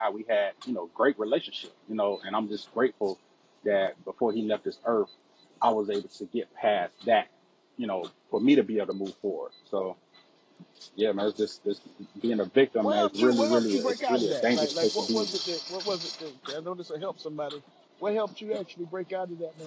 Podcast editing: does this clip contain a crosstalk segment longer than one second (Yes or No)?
Yes